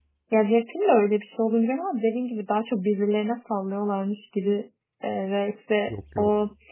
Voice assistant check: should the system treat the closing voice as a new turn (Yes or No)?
No